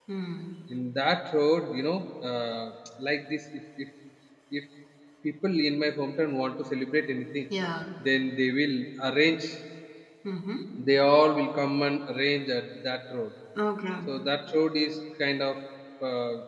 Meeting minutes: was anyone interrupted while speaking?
No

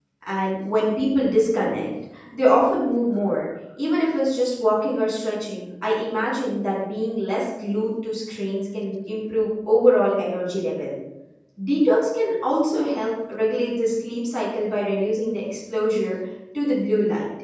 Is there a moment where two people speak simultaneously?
No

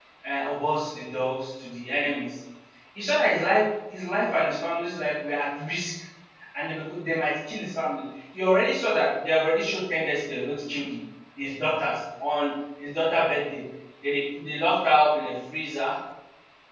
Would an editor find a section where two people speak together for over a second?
No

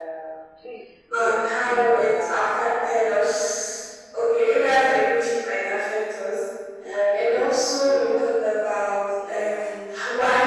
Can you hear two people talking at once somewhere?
Yes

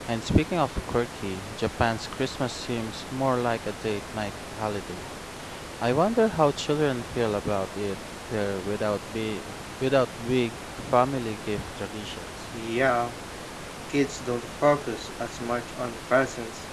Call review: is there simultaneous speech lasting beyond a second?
No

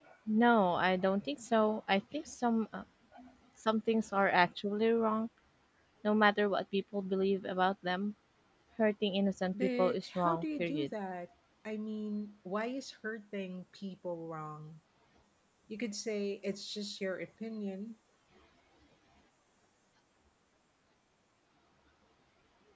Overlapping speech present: Yes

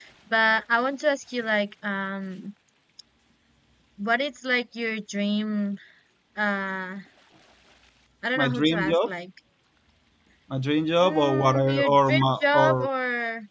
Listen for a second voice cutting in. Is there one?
Yes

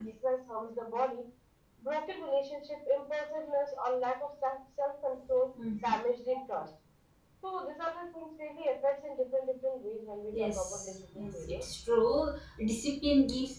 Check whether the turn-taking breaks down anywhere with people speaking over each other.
Yes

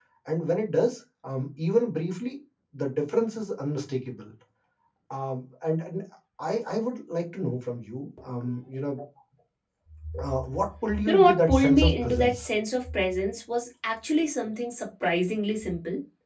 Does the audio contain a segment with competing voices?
Yes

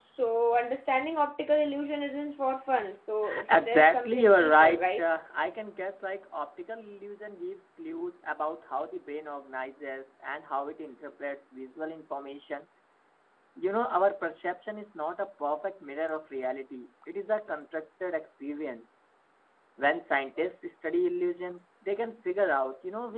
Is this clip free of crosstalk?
No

